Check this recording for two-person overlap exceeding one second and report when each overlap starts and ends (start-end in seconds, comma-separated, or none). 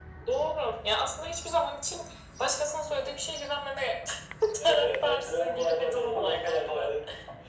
4.6-6.9